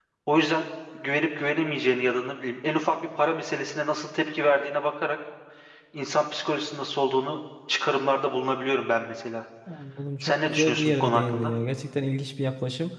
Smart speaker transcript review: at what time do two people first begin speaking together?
10 s

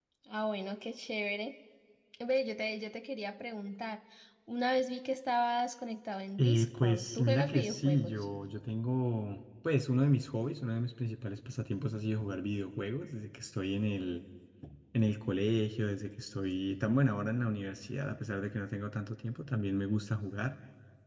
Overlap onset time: 6 s

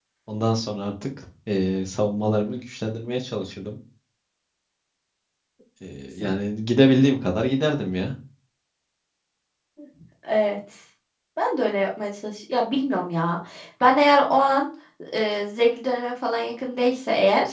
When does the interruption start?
none

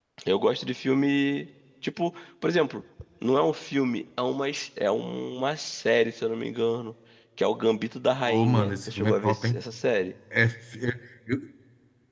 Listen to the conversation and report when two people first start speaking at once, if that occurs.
8 s

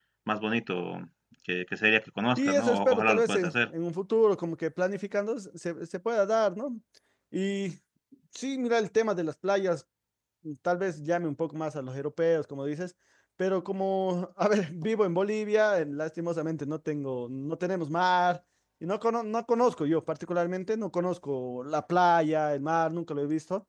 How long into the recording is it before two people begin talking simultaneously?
2 s

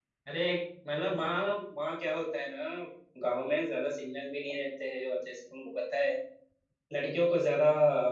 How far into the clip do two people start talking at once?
none

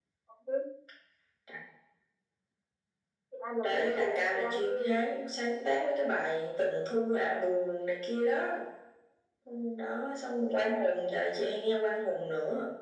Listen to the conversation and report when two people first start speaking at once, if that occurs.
4 s

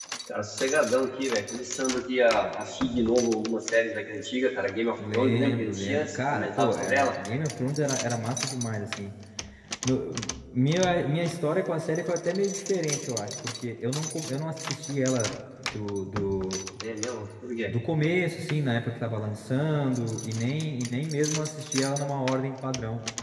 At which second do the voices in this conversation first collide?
5 s

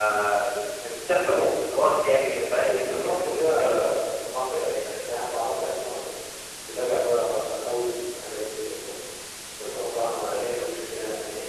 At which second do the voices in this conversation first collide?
2 s

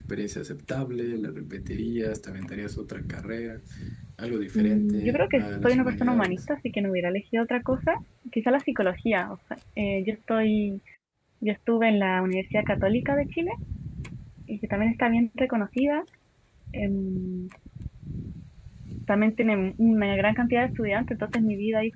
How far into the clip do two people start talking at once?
5 s

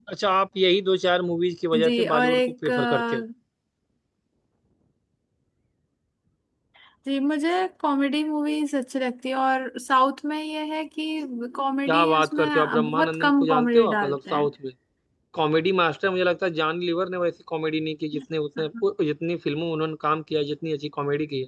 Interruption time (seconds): 2 s

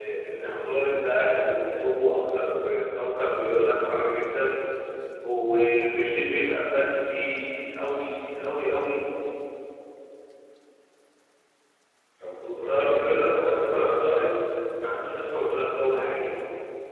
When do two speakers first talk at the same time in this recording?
13 s

